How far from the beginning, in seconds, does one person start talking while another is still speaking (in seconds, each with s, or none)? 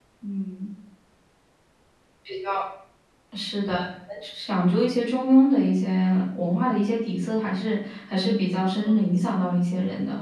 8.2 s